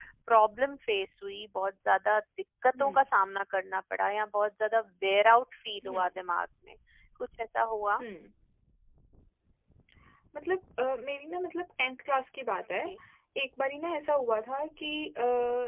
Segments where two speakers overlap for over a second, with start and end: none

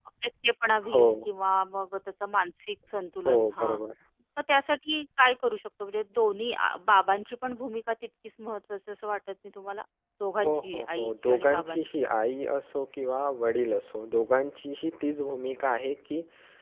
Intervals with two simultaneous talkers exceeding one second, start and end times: 10.4-12.2

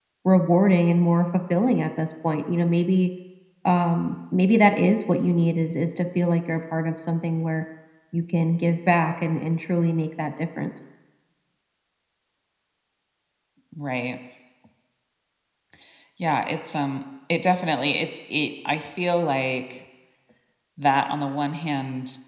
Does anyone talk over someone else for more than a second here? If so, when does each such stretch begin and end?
none

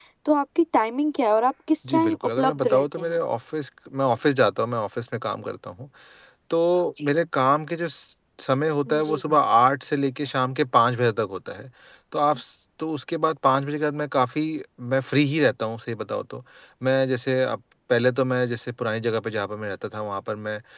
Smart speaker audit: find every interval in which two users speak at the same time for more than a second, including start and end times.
1.9-3.2

